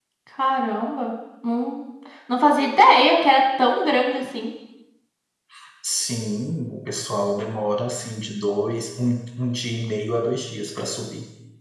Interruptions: none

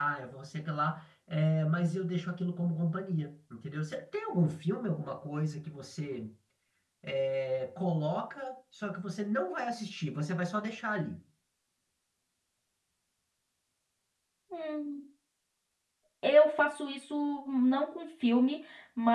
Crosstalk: none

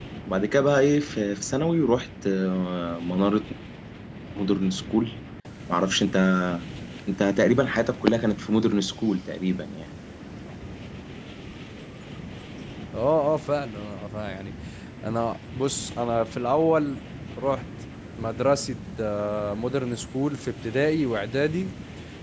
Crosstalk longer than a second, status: none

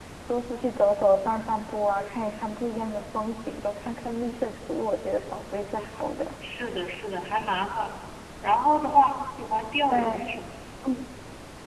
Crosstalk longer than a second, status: none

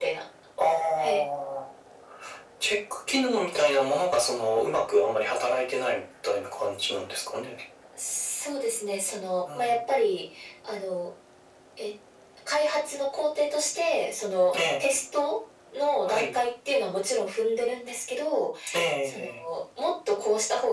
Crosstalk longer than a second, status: none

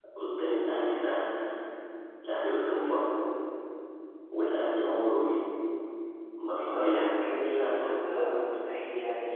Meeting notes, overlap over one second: present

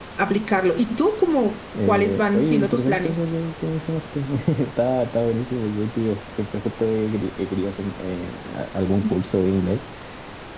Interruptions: present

